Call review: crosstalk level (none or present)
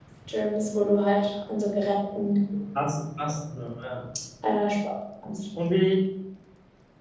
none